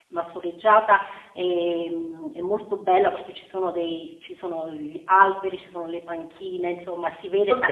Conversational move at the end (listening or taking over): listening